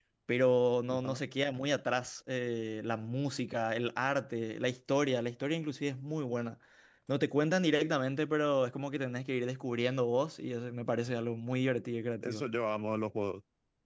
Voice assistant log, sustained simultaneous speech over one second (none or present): none